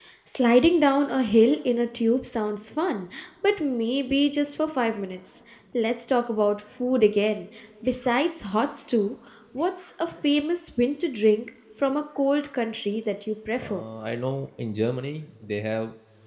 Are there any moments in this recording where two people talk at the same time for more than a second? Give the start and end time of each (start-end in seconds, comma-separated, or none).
none